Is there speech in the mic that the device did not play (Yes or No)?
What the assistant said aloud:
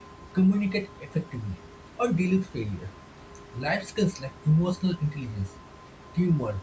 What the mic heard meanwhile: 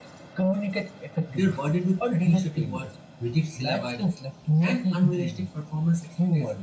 Yes